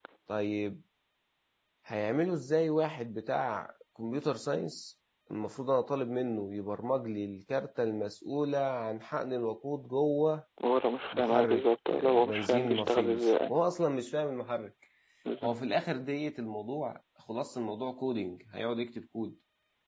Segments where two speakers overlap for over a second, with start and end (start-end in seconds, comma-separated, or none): 11.1-13.5